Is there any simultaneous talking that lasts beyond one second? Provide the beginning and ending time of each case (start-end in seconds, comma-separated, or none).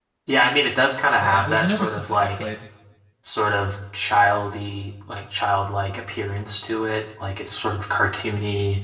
1.2-2.5